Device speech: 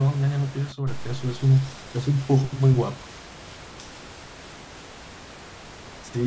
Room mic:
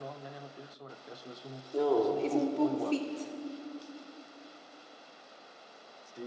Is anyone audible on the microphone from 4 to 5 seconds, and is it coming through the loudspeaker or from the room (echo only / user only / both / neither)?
neither